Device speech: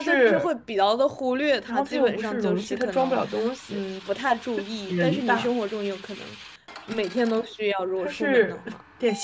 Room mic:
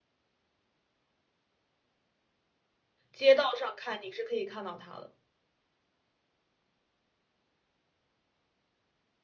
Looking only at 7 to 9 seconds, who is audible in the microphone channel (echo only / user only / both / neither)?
neither